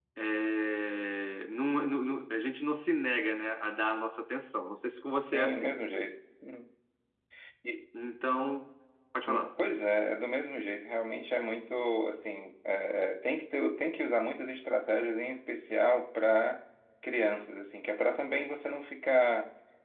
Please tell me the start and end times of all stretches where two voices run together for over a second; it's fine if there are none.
none

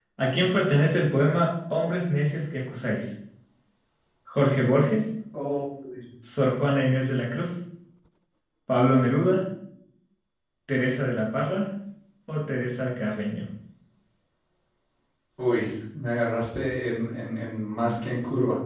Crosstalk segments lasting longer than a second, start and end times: none

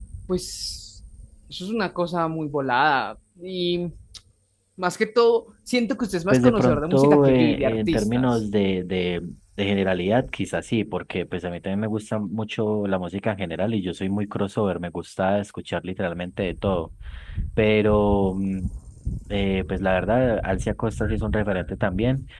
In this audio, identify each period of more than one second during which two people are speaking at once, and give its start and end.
6.3-8.3

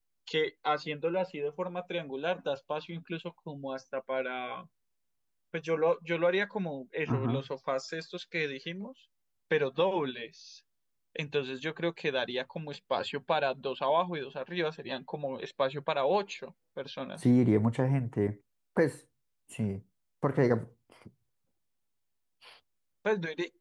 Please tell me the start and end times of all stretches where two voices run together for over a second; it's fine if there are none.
none

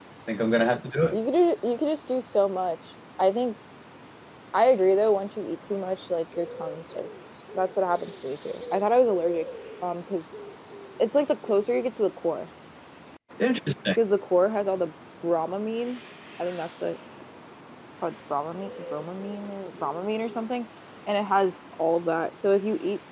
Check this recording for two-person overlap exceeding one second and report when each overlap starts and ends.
none

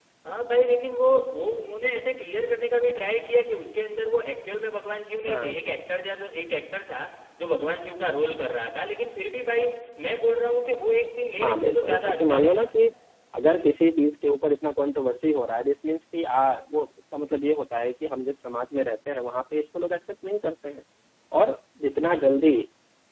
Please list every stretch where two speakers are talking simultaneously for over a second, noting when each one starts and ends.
11.4-12.7

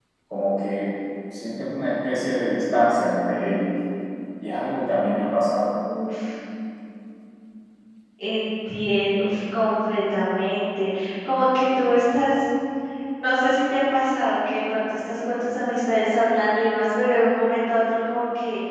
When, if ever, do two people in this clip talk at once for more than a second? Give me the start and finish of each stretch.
none

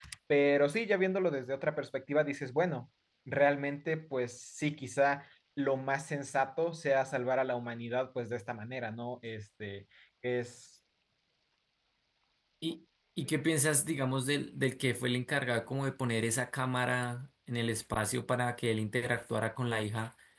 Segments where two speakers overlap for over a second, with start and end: none

